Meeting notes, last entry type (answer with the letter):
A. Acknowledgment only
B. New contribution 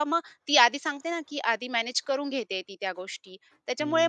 B